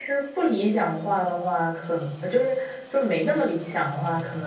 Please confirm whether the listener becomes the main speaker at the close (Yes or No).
No